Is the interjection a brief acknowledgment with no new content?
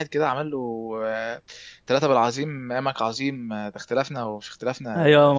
No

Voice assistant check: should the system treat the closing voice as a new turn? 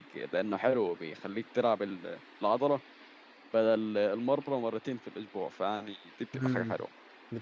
Yes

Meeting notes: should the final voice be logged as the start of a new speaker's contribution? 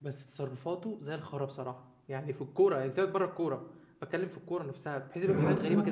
Yes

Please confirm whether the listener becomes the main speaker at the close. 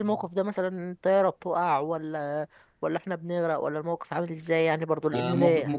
Yes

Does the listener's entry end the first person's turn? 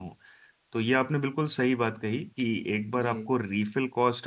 No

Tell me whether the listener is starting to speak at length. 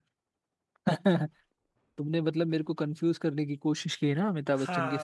Yes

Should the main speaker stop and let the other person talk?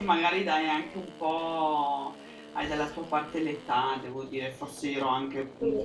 No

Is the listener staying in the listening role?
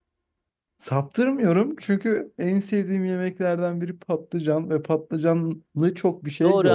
No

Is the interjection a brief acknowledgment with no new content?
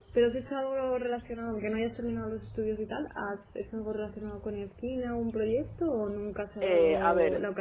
No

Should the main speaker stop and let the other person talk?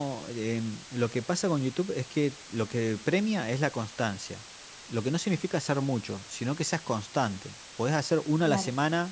No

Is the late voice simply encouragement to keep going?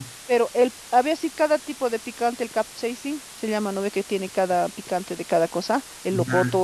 Yes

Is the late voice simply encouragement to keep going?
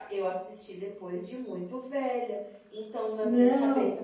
Yes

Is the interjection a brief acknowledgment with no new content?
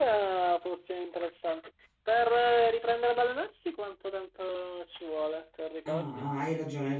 No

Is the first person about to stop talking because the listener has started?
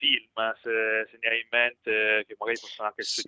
No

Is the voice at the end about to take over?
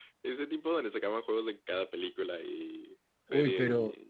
Yes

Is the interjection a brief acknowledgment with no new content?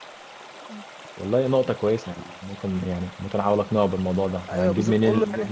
No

